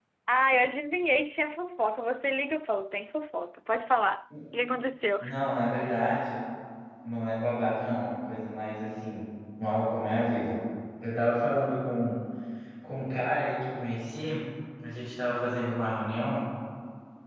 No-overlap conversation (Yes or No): Yes